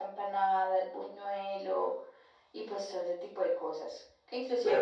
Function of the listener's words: listening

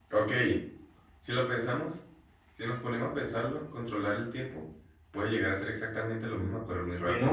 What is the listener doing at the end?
taking over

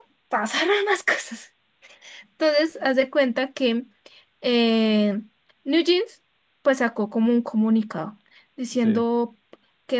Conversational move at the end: listening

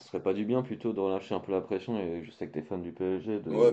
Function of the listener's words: taking over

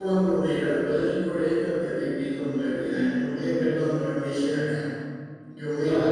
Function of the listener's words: listening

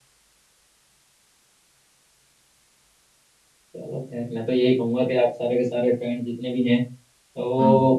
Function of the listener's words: listening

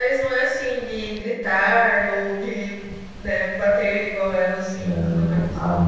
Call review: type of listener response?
taking over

